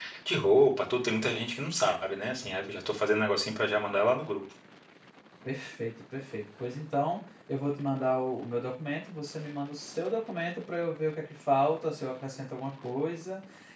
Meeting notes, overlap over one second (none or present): none